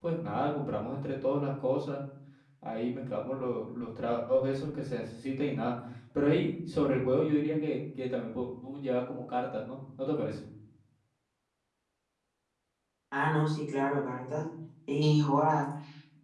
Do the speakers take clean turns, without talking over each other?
Yes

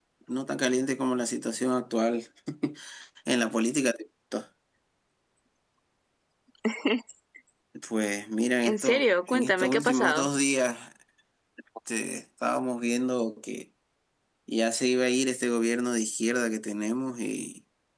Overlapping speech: Yes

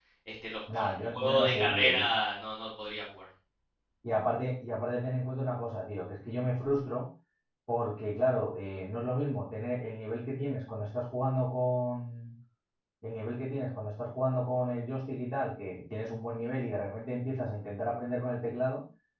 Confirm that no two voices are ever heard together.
No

